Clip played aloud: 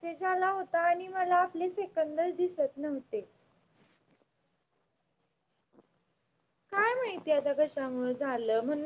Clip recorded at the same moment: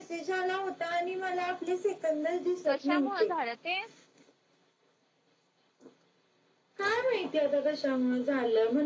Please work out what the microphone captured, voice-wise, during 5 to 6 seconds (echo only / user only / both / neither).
neither